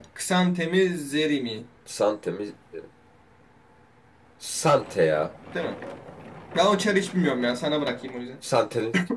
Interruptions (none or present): none